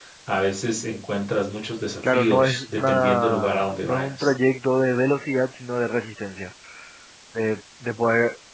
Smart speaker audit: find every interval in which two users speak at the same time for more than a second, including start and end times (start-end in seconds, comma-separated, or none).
2.1-4.3